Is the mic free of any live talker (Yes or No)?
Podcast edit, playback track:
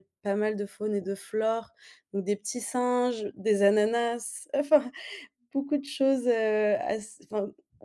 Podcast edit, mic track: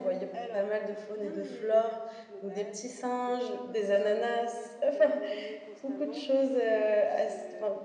No